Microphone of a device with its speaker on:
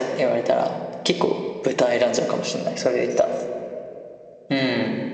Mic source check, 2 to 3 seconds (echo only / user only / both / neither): echo only